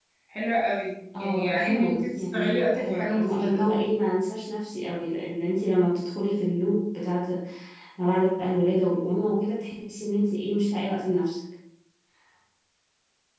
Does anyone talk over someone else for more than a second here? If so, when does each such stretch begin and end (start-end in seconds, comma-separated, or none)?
1.2-3.6